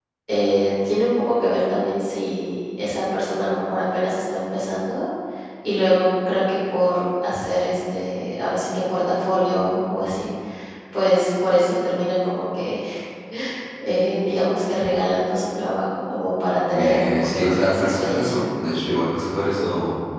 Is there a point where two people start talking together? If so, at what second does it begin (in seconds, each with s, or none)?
16.7 s